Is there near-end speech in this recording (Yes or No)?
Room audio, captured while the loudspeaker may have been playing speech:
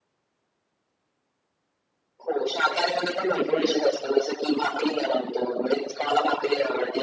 Yes